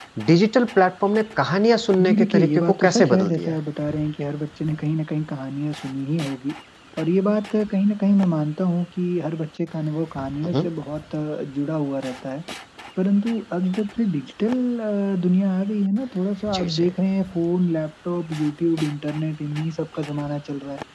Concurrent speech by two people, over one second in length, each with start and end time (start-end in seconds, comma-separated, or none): 2.0-3.6